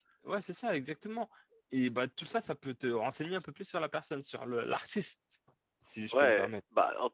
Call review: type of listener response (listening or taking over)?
taking over